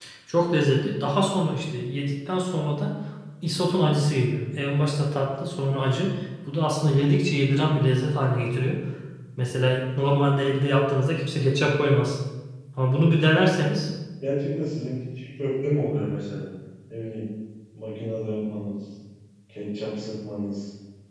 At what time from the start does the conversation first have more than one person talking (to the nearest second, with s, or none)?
none